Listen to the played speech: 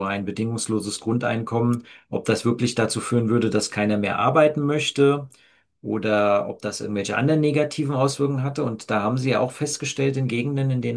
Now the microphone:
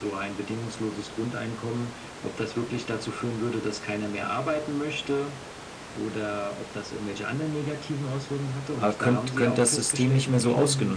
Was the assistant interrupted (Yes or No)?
Yes